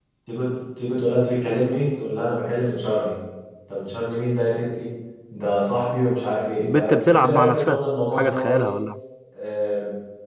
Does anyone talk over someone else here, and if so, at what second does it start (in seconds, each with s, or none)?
6.6 s